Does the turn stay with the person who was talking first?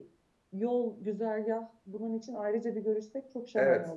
No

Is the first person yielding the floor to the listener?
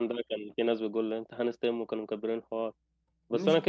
No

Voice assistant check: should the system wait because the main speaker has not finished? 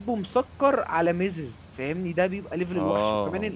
Yes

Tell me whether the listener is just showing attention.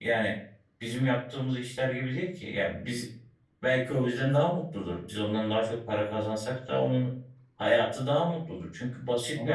No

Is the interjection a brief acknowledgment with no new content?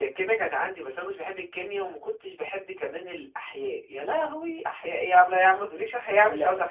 No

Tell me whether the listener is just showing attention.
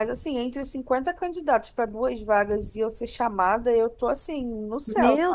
No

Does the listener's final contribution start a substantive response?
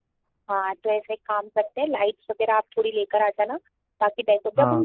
No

